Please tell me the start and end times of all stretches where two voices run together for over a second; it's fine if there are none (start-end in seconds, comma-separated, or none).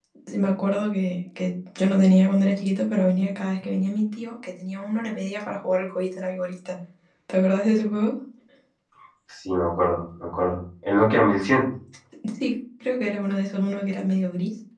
none